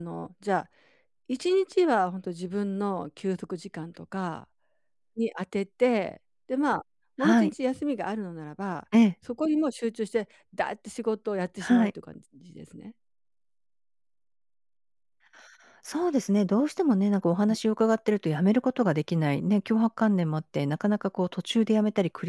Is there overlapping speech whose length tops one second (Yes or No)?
No